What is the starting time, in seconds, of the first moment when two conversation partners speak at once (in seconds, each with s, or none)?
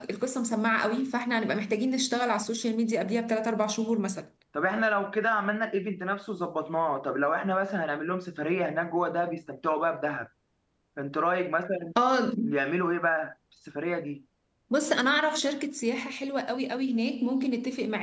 none